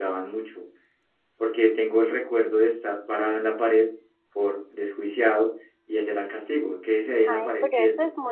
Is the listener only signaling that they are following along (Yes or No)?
No